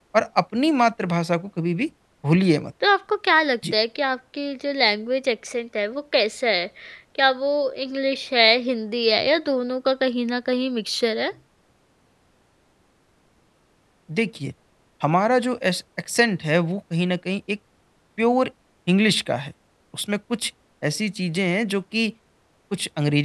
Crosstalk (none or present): none